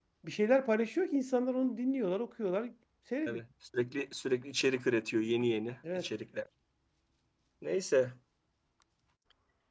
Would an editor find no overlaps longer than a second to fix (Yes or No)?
Yes